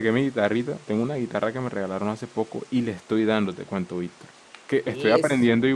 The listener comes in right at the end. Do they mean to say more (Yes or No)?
No